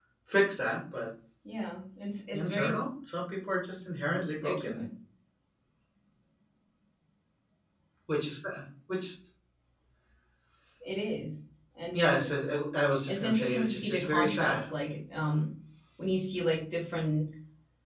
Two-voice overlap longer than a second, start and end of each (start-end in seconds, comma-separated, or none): 13.1-14.6